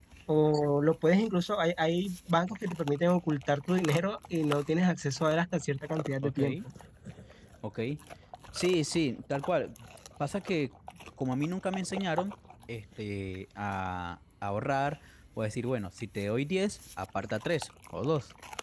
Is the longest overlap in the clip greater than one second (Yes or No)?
No